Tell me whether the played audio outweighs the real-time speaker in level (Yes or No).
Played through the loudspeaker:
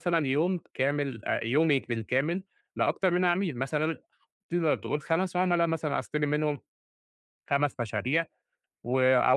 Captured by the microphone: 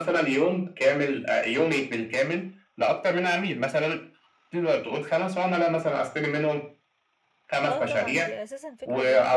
Yes